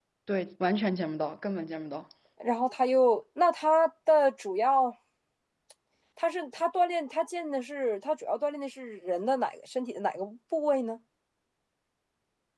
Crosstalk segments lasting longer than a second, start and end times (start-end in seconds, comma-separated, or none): none